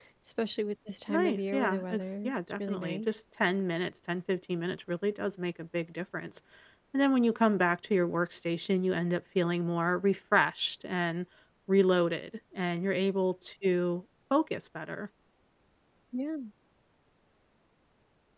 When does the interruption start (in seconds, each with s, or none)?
1.1 s